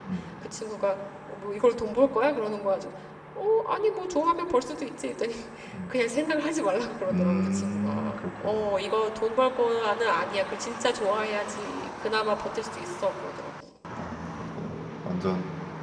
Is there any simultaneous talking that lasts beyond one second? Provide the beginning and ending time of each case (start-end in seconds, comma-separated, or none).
7.1-8.8